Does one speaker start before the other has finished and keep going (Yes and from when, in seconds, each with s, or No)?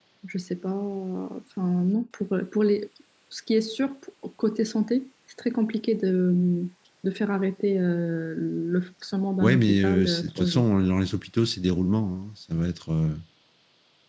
Yes, from 9.4 s